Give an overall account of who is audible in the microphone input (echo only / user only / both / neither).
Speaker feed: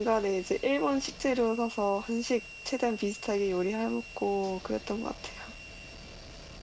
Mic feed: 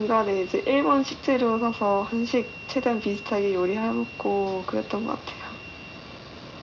echo only